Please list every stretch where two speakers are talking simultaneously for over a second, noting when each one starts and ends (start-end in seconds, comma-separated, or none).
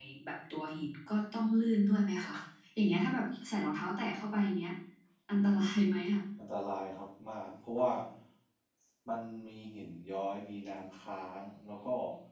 none